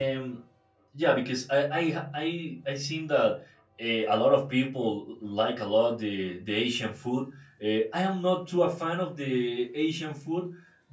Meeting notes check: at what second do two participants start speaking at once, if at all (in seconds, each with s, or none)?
none